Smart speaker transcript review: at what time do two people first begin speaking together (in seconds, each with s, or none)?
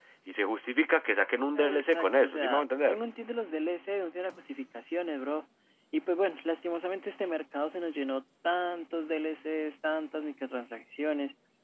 1.6 s